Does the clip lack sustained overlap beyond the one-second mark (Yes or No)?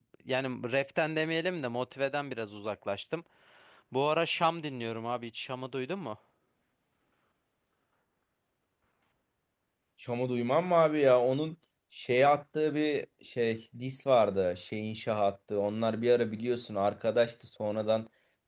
Yes